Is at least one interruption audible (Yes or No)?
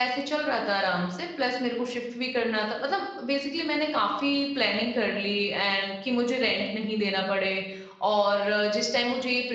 No